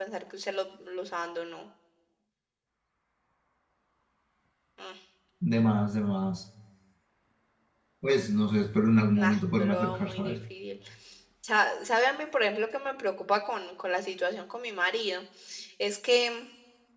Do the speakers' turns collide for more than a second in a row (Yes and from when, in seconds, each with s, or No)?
Yes, from 9.2 s